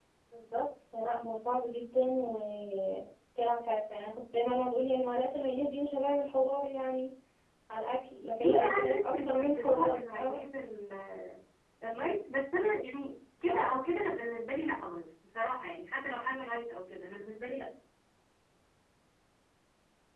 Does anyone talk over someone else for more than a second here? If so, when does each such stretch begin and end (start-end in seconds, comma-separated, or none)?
8.4-10.4